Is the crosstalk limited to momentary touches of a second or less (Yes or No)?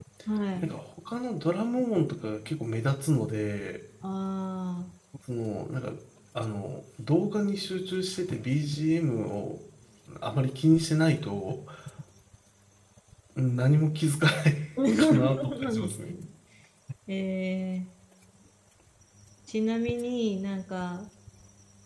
No